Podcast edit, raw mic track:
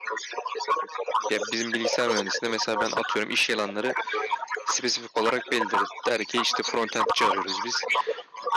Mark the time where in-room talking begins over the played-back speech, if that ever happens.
1.3 s

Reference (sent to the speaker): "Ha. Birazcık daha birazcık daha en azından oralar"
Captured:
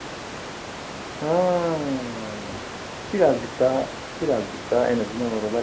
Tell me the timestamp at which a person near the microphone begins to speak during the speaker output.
none

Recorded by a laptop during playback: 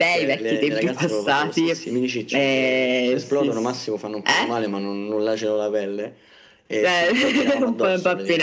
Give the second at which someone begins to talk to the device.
none

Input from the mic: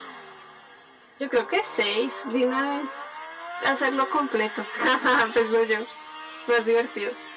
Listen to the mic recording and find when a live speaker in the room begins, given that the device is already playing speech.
none

